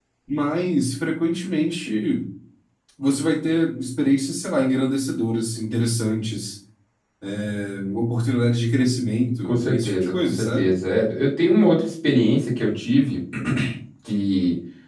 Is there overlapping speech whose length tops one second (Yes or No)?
Yes